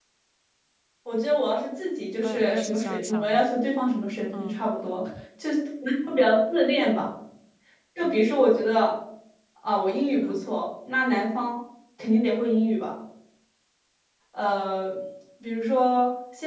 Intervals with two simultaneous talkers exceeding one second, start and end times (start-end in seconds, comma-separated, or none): 2.2-3.4